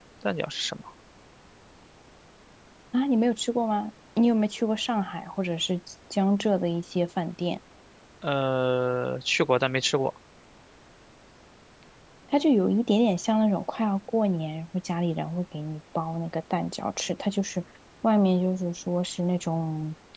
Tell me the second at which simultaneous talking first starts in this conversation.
none

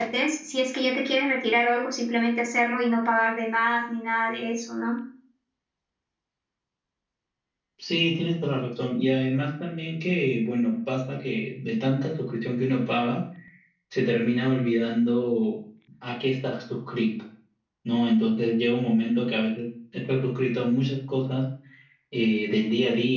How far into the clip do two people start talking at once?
none

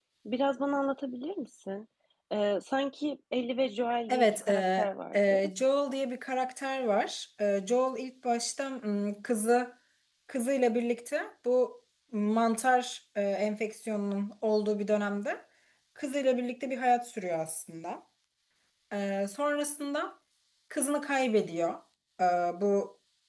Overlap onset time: 4.1 s

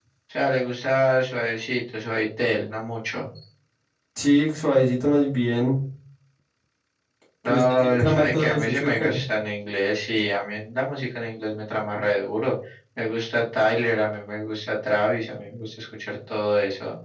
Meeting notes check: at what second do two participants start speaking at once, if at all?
7.4 s

